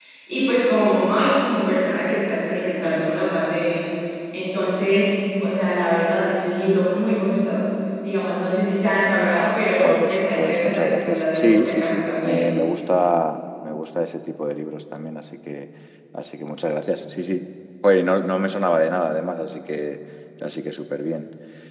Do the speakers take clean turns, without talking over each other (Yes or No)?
No